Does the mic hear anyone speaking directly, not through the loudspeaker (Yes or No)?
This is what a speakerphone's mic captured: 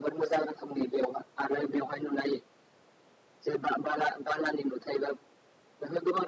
No